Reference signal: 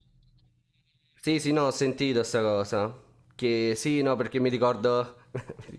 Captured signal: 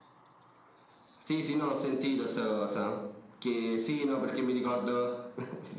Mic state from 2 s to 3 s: echo only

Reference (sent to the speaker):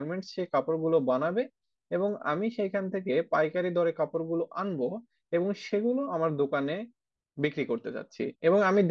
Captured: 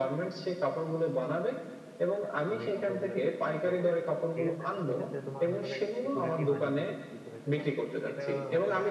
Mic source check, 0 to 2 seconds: echo only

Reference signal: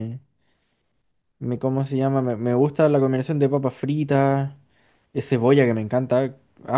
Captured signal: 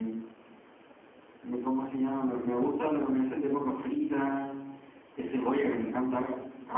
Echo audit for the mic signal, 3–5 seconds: echo only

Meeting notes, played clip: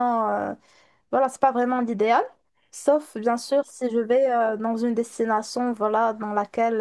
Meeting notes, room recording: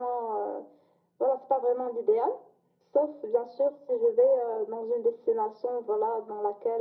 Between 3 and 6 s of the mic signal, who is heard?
echo only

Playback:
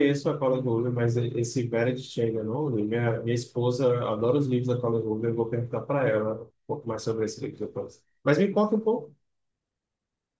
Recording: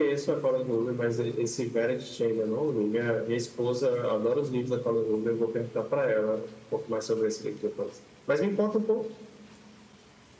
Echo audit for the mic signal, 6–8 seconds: echo only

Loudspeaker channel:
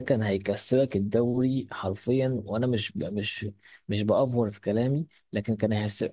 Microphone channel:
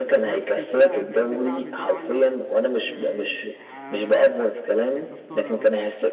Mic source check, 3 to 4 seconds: both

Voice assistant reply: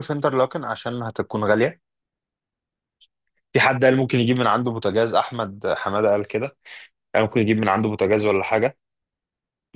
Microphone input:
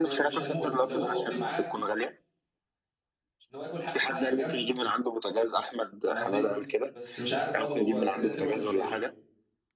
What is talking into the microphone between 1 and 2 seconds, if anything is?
both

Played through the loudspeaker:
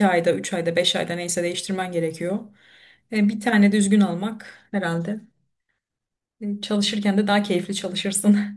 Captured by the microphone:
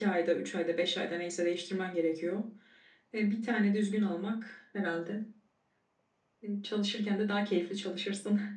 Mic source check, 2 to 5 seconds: echo only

